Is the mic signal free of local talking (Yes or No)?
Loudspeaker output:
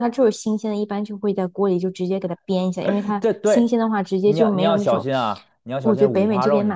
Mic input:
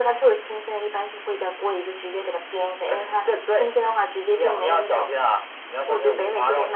Yes